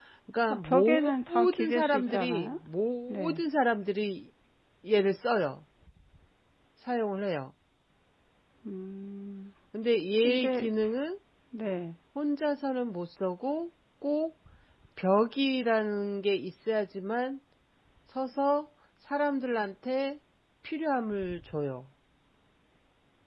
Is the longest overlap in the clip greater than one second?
Yes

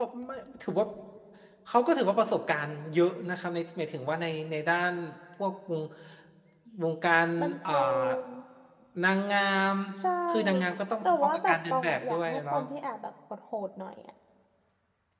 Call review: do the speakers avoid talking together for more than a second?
No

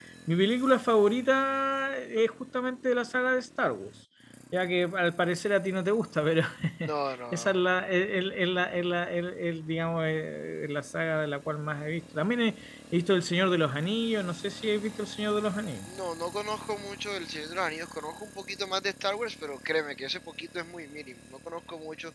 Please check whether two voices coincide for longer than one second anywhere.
No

